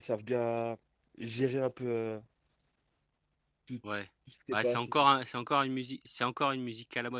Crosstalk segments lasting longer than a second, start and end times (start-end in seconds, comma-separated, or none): none